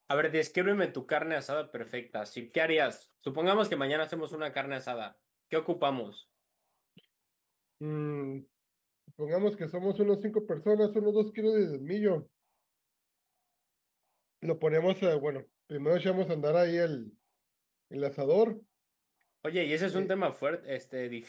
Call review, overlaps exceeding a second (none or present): none